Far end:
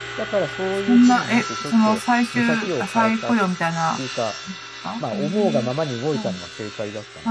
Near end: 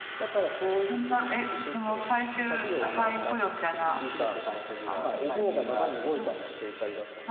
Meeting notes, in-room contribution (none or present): present